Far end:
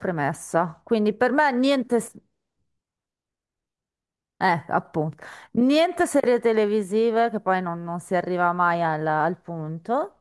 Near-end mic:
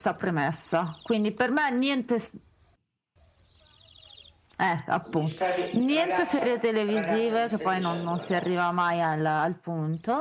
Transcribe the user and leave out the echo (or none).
Mi stai, pi- ragazza, ragazza, mi stai piacendo, ragazza.